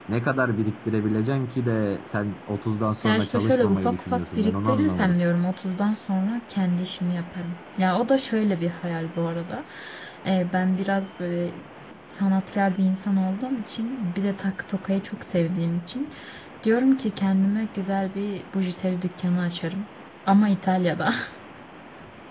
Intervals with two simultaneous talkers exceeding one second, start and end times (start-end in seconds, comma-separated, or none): 3.0-5.2